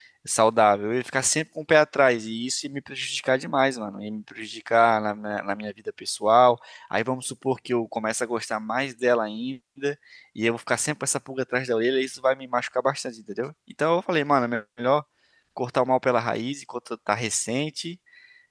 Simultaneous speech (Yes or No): No